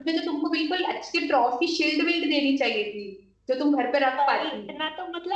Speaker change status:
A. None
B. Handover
B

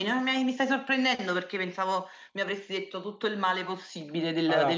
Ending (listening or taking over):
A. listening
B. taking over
B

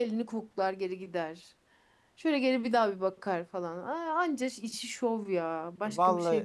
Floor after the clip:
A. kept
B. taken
B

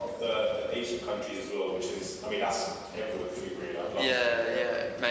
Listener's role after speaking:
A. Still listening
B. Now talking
B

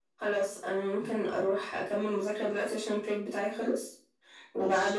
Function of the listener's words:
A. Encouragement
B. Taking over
A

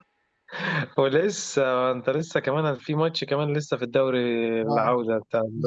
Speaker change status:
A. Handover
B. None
A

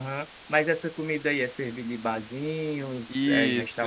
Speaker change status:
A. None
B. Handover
B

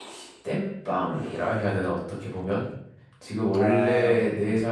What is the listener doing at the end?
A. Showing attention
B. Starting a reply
A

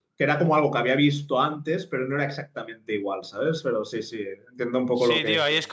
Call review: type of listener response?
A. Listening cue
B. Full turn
B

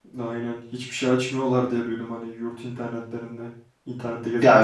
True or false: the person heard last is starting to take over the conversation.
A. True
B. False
A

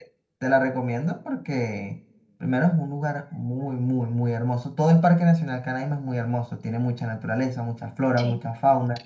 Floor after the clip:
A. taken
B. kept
B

